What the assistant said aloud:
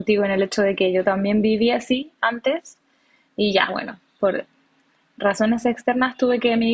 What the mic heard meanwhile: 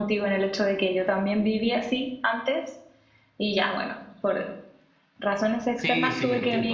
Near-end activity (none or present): present